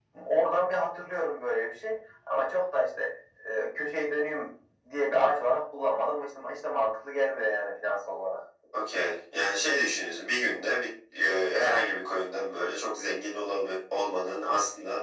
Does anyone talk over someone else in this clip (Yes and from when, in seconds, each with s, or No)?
No